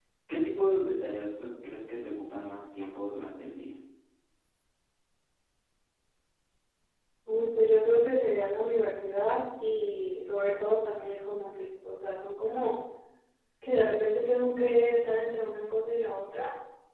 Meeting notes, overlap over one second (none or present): none